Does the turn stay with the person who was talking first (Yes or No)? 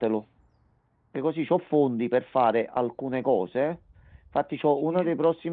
Yes